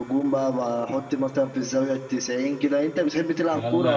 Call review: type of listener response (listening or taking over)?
taking over